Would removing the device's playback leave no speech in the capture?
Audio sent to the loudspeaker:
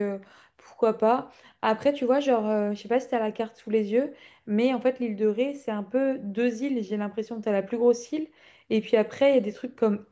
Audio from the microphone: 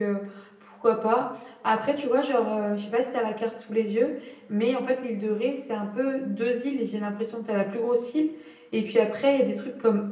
Yes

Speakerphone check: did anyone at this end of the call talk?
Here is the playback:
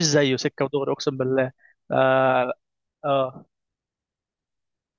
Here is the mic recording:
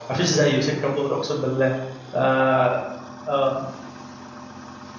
No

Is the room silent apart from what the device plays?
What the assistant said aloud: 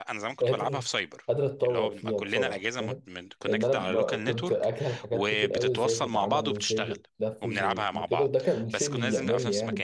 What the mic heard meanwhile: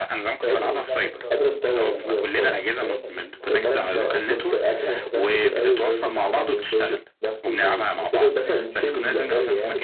No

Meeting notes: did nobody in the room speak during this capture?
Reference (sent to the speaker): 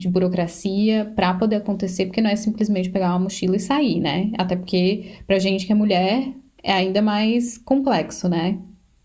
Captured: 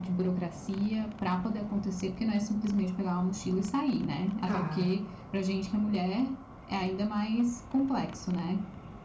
No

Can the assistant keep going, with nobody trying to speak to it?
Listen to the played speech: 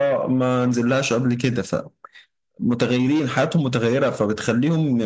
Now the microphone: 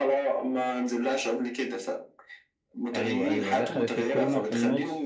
No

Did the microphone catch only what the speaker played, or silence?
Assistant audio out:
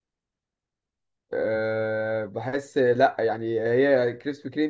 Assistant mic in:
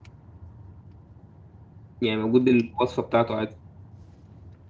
No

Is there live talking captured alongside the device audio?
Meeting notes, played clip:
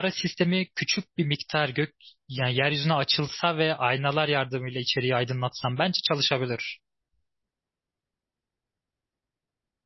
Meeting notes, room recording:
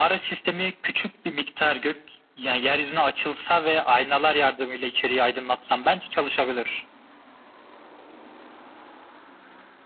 No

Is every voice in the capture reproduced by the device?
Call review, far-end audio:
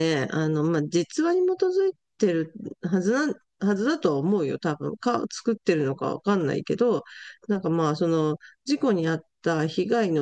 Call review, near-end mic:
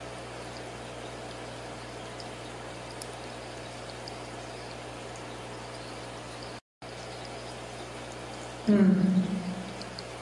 No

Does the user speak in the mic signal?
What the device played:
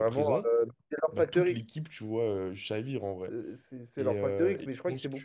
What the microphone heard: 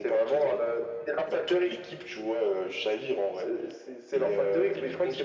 No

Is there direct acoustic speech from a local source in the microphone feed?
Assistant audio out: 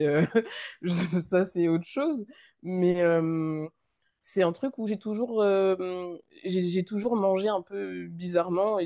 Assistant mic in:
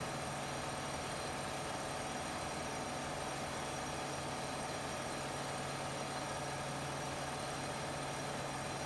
No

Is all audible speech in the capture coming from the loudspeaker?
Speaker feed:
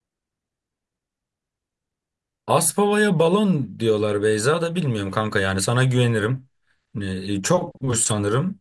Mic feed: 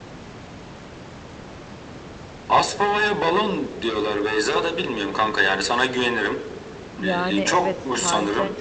No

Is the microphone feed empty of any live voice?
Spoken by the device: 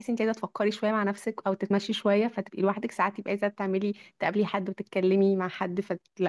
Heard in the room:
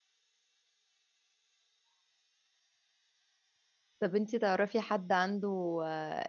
No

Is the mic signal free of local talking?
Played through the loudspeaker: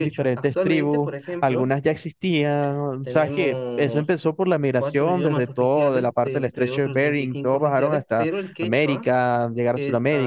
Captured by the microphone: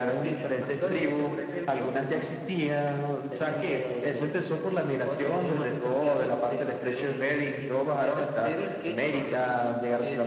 Yes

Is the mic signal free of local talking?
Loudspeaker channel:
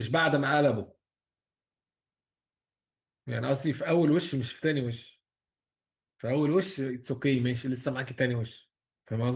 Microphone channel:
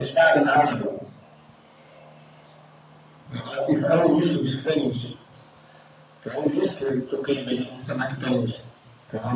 Yes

